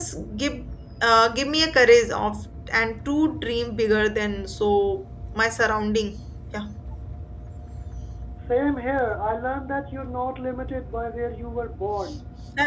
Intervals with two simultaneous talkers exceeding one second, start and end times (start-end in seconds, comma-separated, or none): none